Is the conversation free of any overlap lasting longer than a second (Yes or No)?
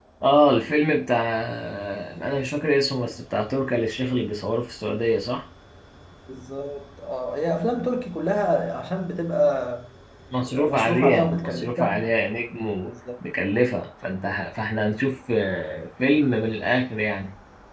No